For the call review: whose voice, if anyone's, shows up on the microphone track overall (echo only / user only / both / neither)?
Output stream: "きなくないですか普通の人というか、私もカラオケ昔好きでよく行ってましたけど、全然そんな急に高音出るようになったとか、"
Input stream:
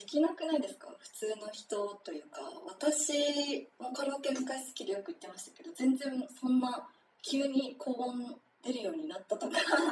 echo only